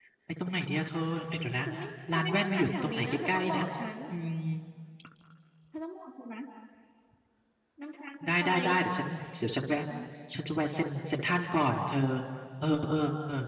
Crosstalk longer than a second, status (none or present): present